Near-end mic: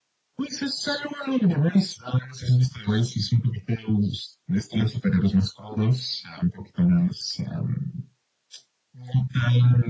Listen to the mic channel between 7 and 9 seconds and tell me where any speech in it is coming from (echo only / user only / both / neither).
echo only